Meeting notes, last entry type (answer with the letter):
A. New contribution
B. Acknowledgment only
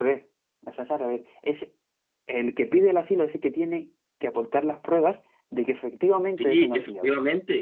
A